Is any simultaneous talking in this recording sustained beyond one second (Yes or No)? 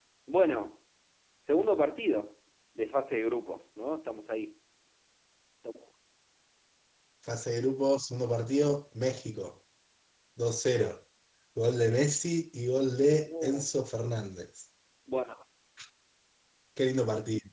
No